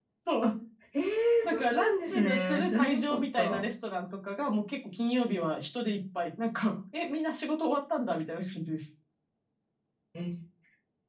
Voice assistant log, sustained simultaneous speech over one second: present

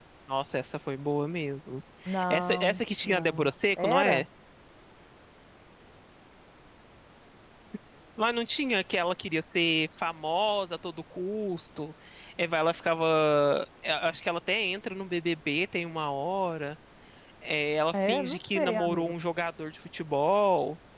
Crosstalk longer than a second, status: present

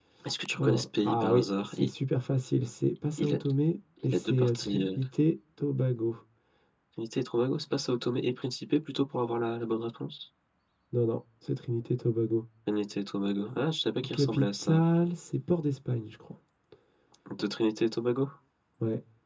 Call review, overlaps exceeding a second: present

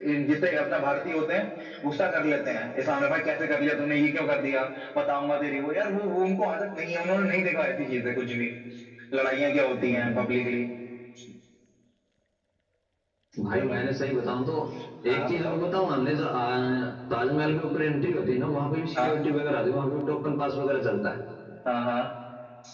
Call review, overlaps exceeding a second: none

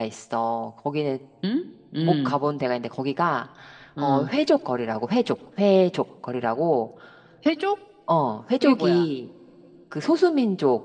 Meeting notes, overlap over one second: none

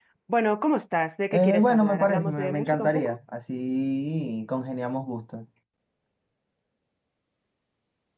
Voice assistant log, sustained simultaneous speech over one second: present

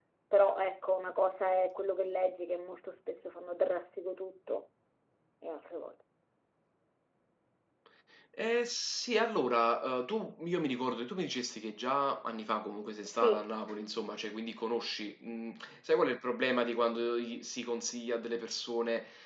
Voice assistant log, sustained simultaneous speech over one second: none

